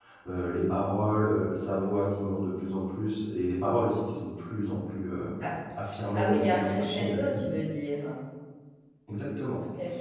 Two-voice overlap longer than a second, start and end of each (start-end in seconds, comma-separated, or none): 6.1-7.4